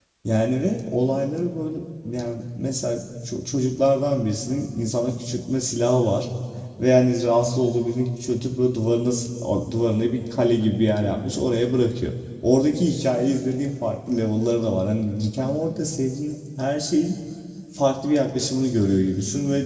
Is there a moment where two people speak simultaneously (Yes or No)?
No